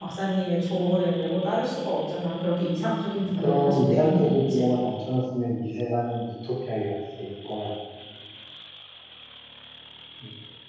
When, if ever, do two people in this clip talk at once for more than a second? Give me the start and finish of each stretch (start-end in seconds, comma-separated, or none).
3.4-4.6